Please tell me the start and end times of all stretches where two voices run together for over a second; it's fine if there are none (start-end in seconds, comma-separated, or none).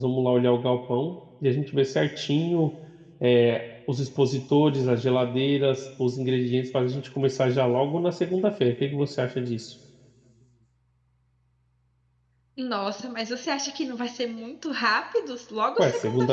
none